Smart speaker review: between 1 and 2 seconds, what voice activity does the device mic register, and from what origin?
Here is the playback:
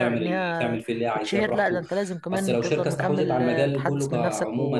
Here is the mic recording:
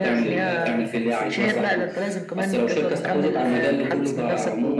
both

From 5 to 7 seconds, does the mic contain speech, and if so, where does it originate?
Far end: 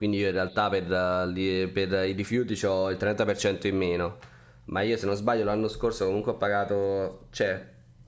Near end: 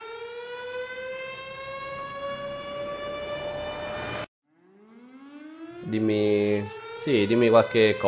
user only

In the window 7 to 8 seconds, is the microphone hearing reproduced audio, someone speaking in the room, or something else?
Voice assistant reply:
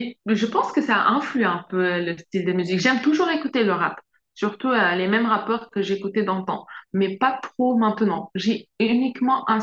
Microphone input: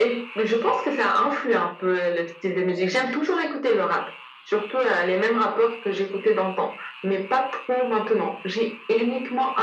echo only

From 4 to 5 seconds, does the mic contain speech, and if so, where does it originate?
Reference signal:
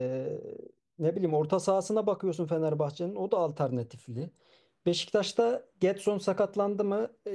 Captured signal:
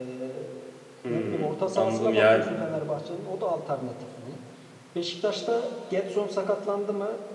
echo only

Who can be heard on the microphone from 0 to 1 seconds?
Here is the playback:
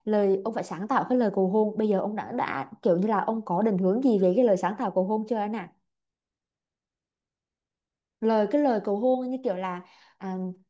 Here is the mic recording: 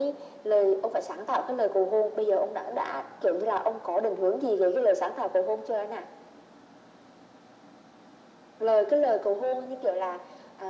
echo only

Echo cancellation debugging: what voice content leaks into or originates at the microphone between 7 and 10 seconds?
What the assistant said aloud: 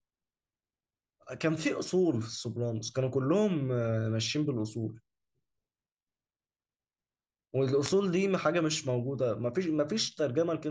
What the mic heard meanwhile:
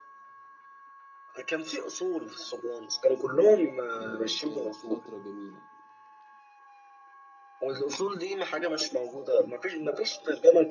echo only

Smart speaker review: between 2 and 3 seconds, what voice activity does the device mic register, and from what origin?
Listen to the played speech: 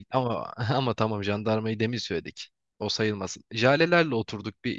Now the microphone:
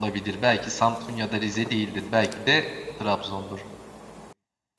user only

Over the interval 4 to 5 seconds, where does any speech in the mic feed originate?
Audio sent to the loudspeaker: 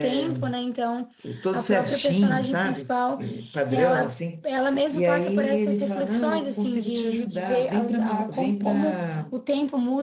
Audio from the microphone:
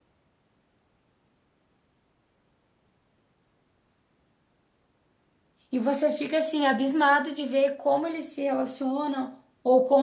neither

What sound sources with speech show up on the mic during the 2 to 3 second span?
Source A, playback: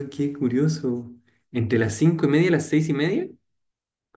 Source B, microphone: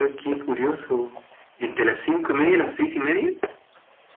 both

